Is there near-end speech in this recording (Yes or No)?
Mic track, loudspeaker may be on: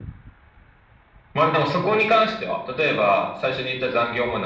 No